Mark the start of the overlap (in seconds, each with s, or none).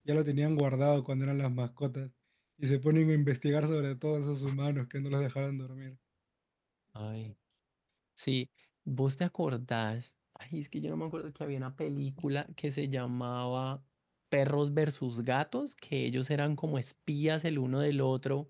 none